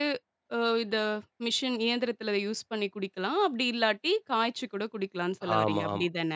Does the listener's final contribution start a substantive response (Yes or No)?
Yes